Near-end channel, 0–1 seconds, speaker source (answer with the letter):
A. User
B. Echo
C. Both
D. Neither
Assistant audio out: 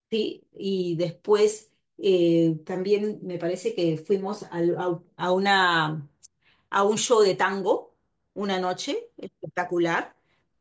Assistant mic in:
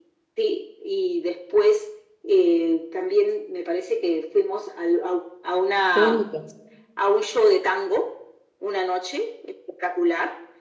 B